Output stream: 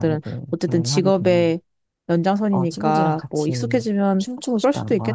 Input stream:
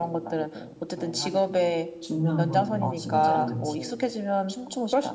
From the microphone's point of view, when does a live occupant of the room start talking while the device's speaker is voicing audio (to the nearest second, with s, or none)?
2 s